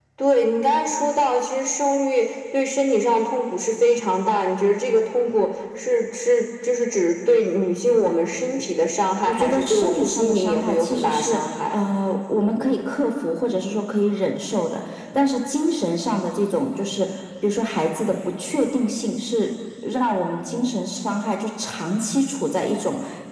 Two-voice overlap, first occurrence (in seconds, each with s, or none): 9.2 s